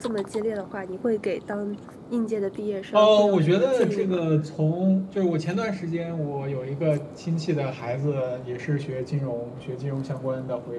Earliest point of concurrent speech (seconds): 2.9 s

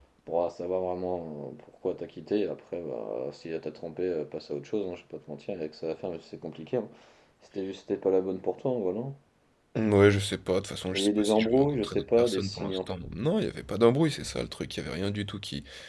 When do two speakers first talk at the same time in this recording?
10.9 s

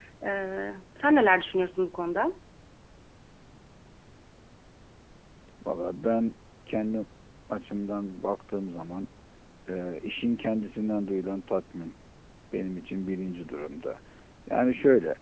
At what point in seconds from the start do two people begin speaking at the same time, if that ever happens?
none

